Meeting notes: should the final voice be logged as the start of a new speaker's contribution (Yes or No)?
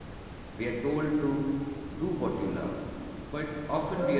No